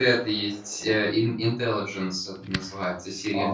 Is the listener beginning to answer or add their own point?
Yes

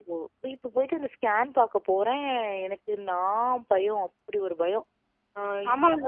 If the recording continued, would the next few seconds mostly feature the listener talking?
Yes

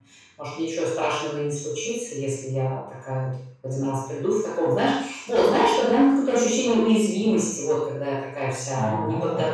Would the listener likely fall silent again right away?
Yes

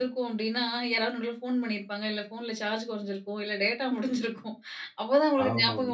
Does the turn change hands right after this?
No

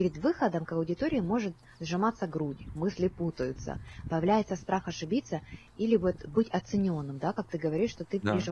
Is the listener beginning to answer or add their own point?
No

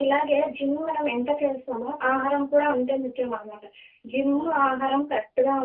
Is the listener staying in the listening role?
Yes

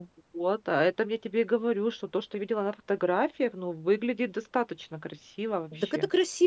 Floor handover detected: Yes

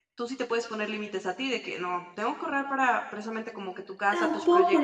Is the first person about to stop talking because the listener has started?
Yes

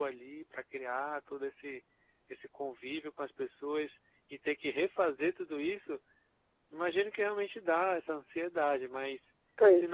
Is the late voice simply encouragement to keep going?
Yes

